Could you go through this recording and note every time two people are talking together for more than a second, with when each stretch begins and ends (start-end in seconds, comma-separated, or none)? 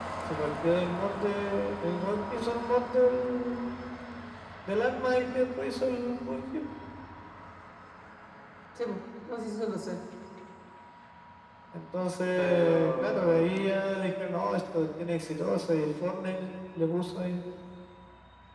12.4-13.6